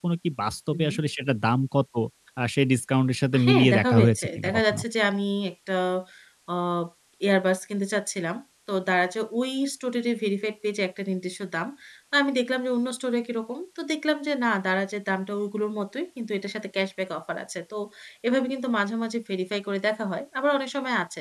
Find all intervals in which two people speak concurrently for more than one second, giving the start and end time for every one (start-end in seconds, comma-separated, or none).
3.5-4.8